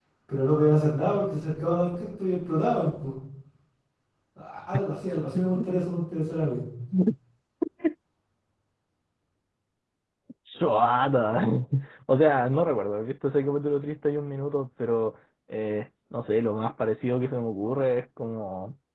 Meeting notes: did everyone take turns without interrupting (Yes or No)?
Yes